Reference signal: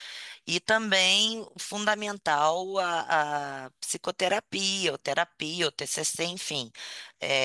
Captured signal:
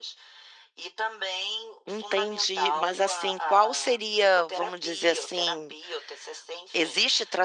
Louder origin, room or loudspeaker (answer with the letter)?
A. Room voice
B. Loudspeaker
A